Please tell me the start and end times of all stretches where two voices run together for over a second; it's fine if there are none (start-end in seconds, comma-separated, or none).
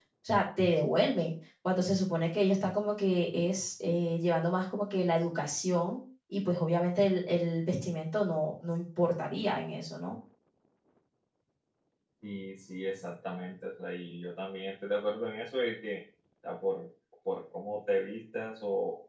none